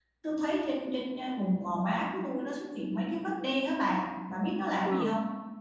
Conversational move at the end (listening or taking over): taking over